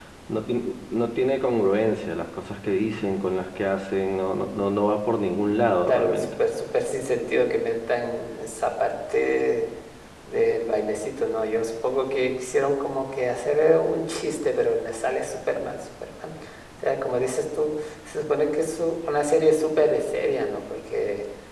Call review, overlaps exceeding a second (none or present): none